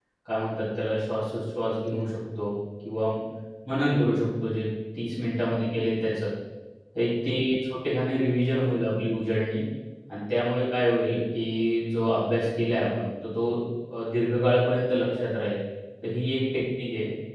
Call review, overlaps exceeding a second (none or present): none